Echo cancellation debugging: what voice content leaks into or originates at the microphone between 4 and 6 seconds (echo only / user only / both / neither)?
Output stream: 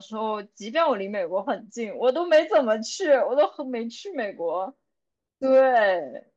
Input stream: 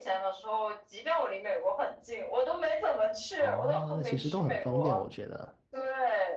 both